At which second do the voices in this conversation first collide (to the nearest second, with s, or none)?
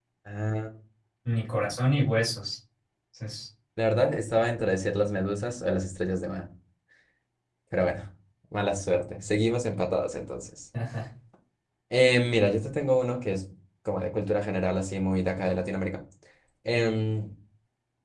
none